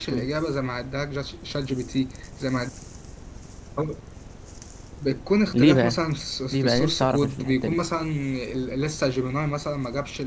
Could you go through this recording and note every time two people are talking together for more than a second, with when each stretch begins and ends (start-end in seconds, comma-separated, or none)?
6.5-7.8